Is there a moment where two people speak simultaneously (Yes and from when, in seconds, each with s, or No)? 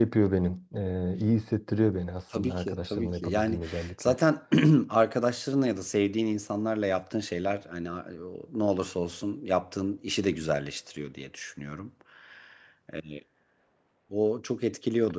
Yes, from 2.3 s